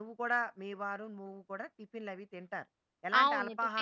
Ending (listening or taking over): taking over